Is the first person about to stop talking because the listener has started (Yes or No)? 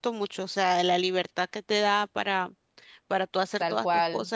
Yes